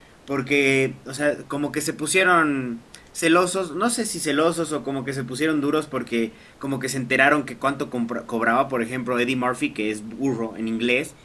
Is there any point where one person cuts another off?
No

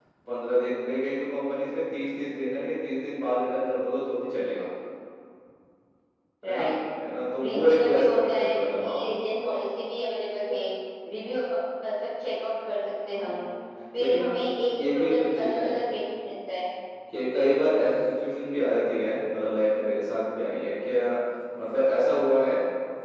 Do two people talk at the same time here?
Yes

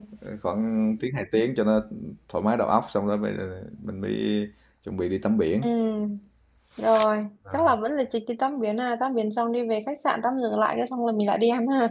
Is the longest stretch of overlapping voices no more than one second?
Yes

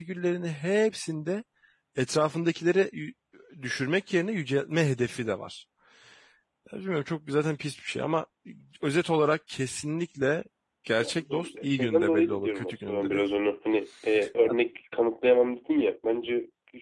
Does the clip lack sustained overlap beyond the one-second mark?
No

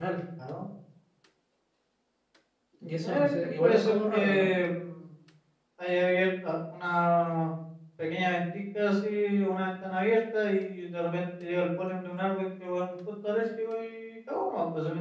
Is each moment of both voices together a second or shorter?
No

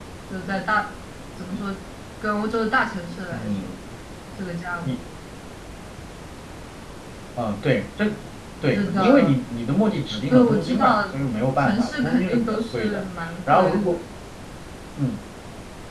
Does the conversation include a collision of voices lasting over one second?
Yes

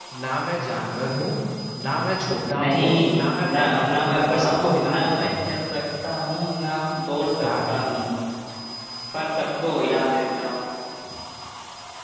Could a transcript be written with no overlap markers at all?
No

